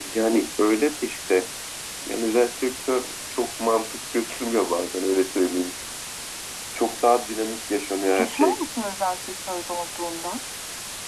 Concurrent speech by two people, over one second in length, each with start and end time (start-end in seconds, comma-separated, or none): none